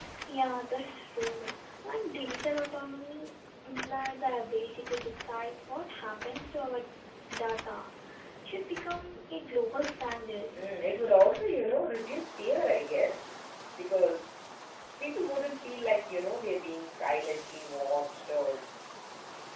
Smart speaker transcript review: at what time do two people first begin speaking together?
none

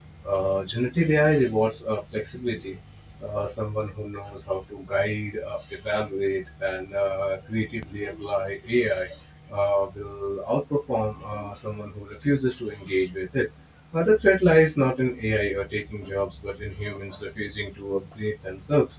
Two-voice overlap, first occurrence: none

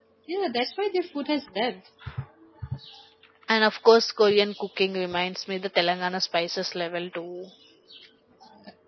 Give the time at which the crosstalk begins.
none

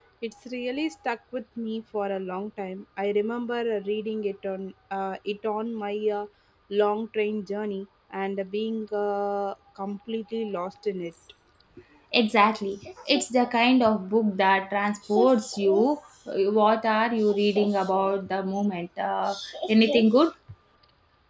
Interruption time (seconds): none

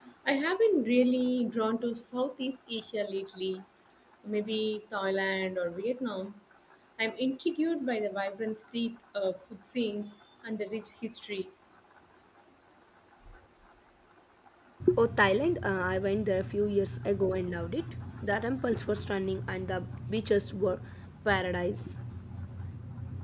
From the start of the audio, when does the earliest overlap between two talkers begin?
none

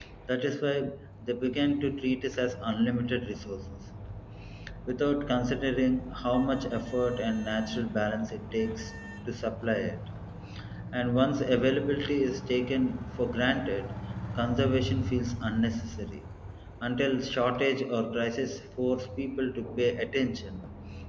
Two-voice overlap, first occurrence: none

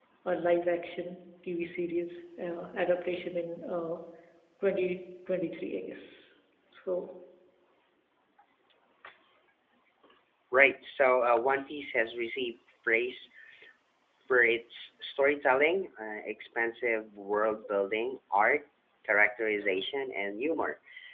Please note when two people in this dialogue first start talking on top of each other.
none

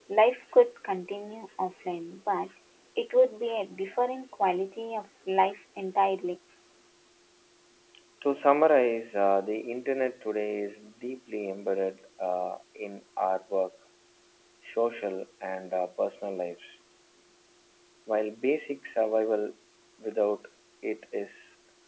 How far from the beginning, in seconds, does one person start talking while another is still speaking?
none

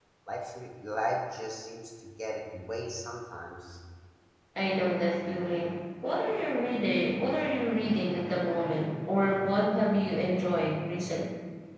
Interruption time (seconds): none

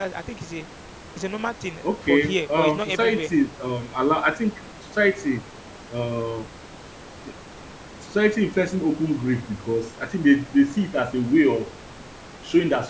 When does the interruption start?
1.8 s

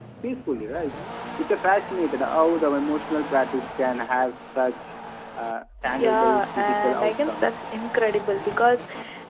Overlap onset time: 6.0 s

